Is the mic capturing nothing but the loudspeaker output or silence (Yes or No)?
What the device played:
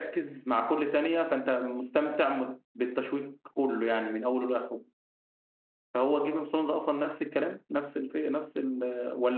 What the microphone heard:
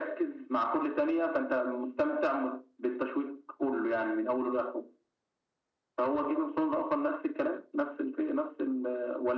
Yes